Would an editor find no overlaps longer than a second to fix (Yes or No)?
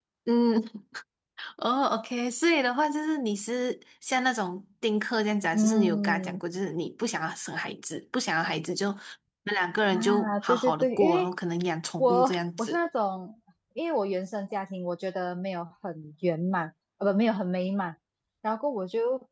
No